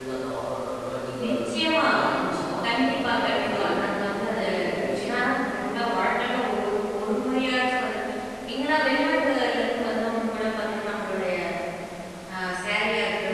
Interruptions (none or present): present